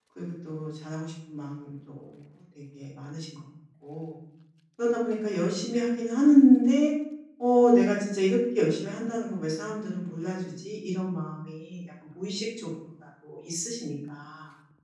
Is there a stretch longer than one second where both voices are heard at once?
No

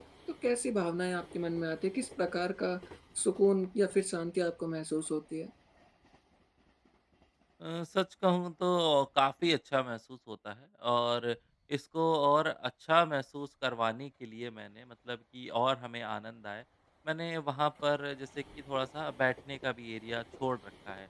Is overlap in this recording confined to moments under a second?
Yes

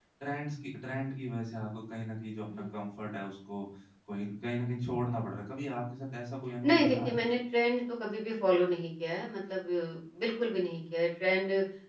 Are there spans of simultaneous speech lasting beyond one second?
No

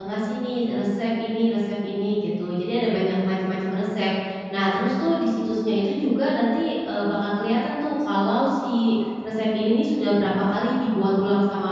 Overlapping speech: No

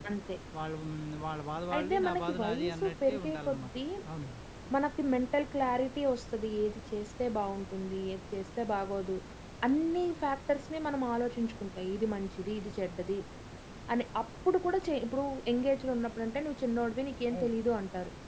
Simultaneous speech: Yes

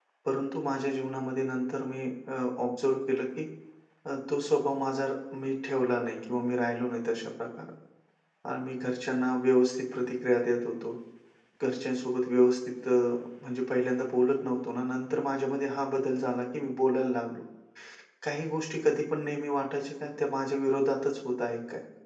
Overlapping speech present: No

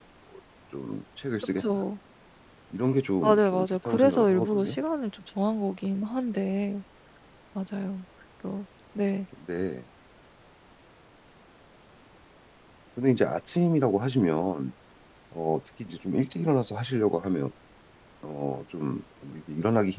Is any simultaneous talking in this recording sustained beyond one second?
Yes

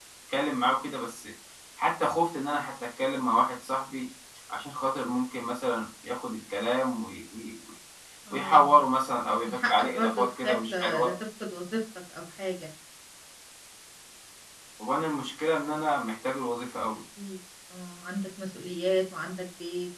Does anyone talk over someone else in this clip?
Yes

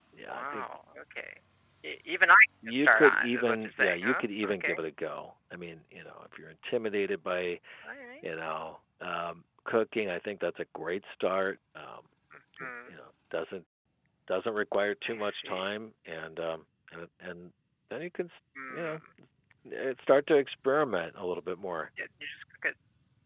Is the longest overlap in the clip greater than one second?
Yes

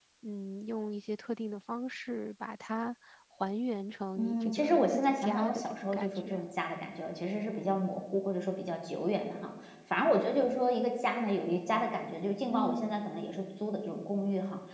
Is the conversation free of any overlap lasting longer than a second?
No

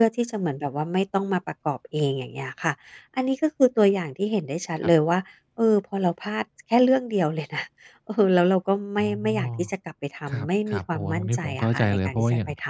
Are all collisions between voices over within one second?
No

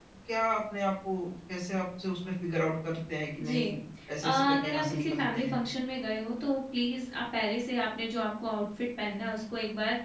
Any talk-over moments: Yes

